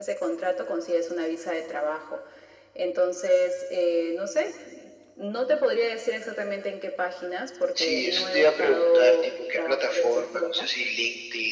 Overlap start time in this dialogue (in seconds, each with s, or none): 7.8 s